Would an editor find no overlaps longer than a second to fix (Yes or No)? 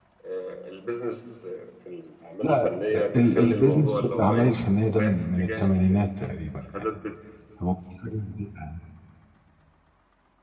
No